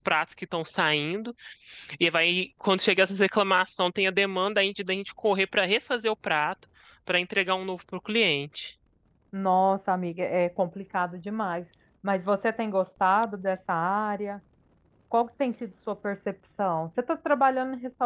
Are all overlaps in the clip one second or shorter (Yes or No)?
Yes